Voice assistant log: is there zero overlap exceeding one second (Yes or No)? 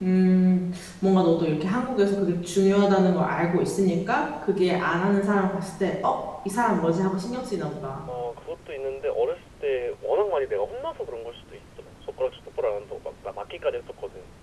Yes